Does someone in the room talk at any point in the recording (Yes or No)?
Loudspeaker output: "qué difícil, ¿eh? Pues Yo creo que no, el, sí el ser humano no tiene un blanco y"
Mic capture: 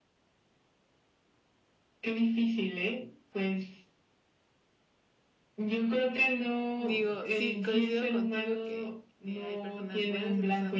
Yes